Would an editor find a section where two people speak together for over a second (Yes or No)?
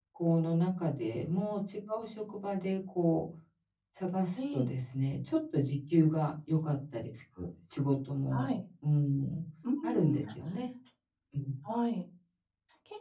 No